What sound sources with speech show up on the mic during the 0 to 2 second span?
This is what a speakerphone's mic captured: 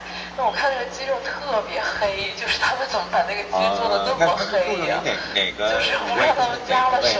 echo only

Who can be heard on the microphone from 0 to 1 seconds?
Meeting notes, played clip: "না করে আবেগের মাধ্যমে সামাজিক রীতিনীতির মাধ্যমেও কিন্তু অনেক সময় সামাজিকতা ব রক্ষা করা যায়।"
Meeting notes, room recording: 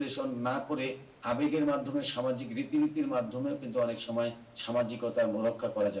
echo only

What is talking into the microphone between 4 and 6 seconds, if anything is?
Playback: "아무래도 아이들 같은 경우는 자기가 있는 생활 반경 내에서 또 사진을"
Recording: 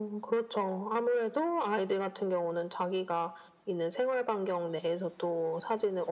echo only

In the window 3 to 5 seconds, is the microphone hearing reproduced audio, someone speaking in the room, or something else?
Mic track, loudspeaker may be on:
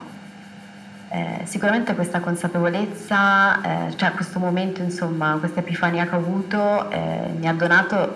echo only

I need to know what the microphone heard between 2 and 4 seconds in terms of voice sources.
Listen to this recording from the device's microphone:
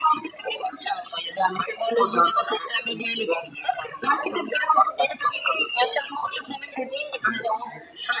echo only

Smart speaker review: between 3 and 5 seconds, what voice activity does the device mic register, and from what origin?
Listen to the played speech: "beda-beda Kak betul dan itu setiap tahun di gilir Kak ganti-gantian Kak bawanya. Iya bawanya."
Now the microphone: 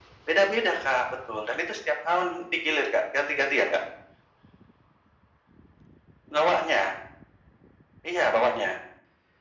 echo only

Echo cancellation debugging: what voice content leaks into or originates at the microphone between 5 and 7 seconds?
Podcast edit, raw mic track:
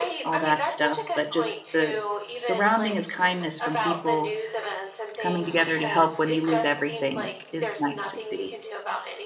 both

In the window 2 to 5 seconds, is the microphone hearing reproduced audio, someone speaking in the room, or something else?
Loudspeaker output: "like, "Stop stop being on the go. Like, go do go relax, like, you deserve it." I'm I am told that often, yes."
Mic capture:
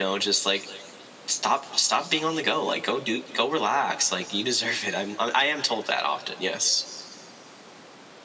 echo only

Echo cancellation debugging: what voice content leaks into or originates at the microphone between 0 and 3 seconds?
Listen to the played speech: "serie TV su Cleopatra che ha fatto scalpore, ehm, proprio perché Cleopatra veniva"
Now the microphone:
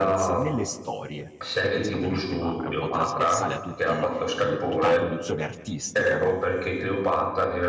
both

